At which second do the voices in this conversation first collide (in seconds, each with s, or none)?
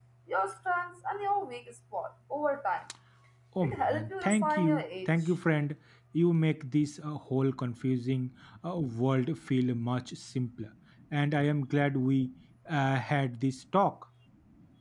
3.6 s